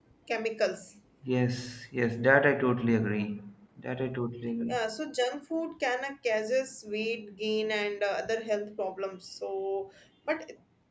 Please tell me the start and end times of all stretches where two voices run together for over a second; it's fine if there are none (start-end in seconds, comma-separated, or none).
none